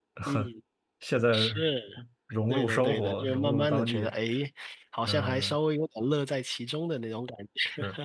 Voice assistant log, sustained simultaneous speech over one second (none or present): present